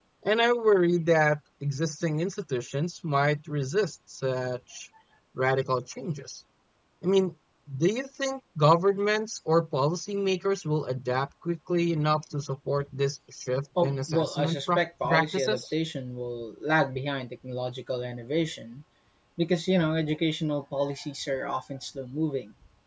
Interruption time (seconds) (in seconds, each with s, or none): 13.8 s